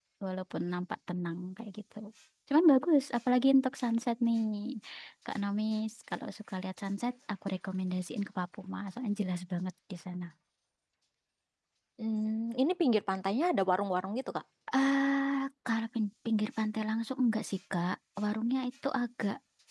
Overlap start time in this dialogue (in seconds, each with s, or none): none